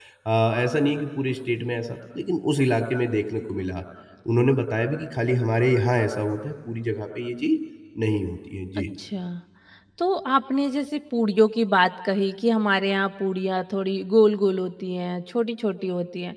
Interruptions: none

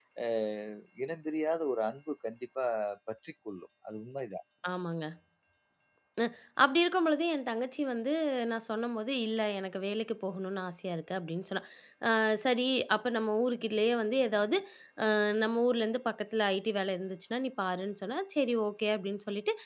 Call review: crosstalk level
none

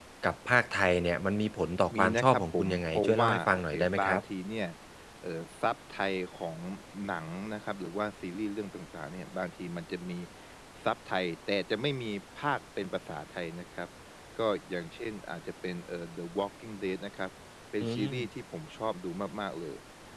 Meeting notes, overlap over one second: present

